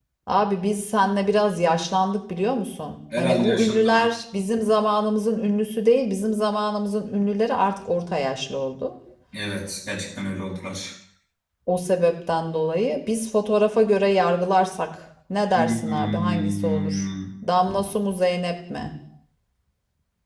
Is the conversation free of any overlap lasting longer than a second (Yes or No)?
No